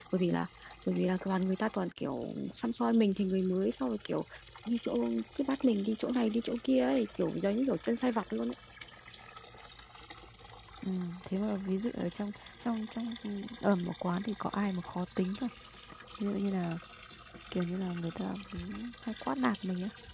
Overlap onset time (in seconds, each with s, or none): none